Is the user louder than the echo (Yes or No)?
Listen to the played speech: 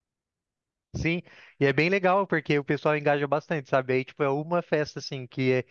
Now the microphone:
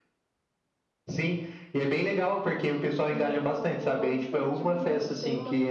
No